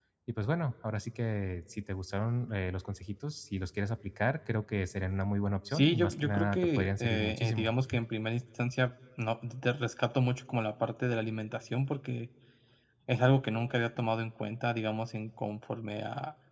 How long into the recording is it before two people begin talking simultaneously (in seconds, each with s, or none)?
5.7 s